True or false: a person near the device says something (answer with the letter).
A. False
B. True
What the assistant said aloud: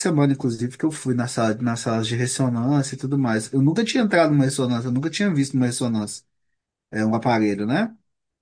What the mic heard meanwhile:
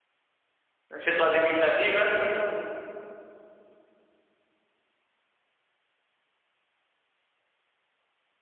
B